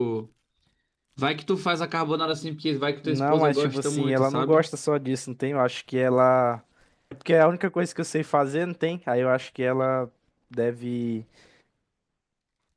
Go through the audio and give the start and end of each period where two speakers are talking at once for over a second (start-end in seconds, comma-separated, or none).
3.0-4.7